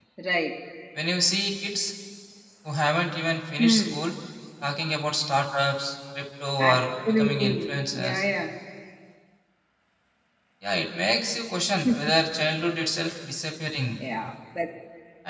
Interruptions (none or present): present